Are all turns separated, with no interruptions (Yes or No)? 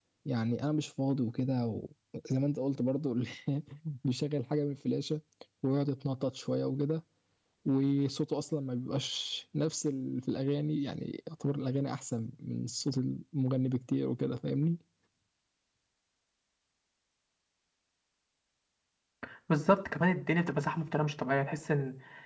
Yes